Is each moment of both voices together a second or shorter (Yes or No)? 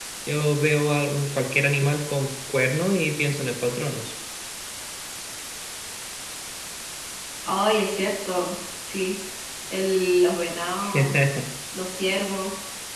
Yes